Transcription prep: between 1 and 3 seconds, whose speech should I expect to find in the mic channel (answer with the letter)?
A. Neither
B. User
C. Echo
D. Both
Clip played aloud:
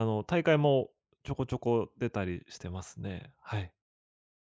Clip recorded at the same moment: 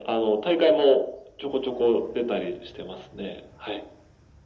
C